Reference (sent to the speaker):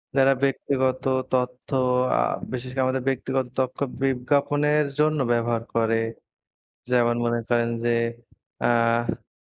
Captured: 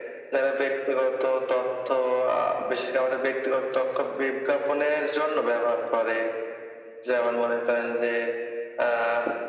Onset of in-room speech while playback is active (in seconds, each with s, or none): none